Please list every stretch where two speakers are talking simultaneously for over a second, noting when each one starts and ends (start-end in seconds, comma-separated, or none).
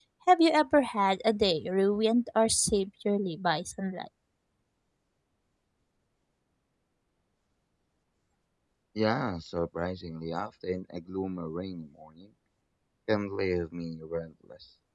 none